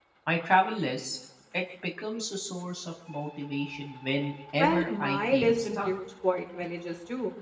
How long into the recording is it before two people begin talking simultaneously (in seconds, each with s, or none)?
4.6 s